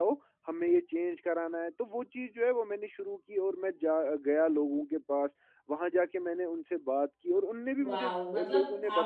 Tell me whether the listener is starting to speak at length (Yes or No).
Yes